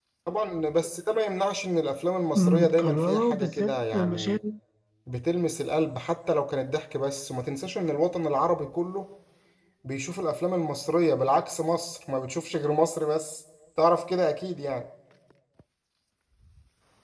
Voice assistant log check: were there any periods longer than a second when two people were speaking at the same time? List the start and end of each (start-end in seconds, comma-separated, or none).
2.4-4.4